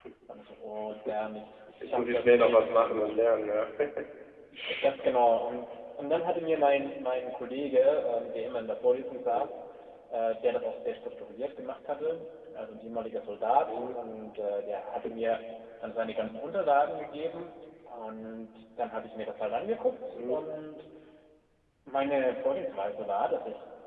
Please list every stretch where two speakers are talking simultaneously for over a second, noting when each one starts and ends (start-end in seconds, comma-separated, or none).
1.8-3.1